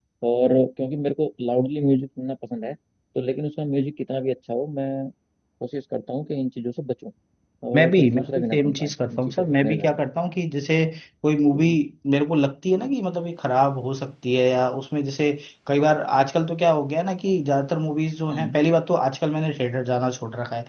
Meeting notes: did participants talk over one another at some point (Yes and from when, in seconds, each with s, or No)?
Yes, from 7.8 s